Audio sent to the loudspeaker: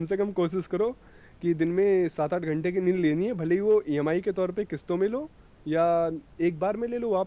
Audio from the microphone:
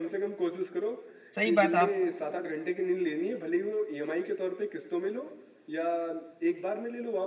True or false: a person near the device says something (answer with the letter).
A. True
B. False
A